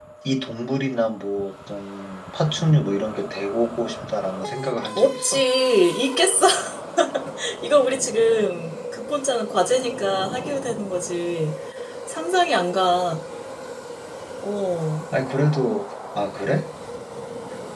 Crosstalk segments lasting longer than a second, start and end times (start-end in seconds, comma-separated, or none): none